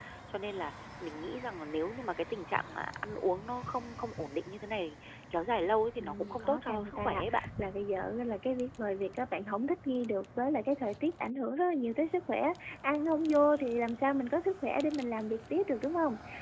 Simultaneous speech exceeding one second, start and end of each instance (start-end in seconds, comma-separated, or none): 6.0-7.4